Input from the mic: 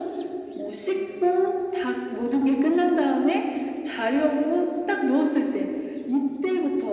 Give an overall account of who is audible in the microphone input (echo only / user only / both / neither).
echo only